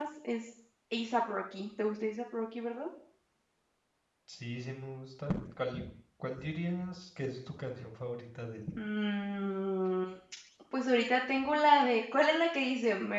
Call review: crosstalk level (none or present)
none